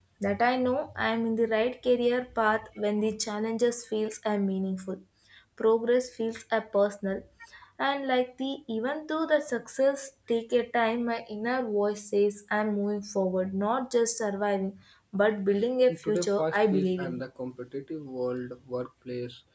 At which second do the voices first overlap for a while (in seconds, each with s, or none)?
15.9 s